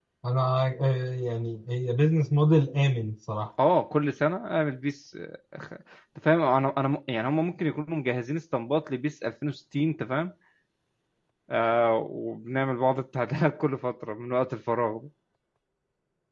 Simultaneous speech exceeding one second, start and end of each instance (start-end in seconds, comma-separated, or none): none